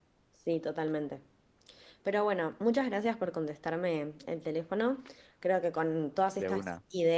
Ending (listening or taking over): listening